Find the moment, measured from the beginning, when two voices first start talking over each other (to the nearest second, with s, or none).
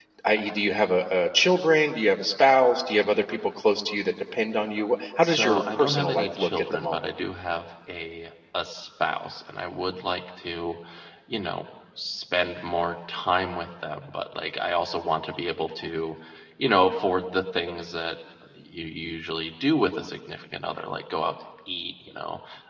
5 s